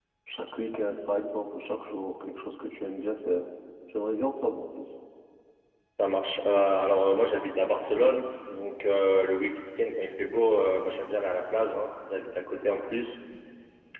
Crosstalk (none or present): none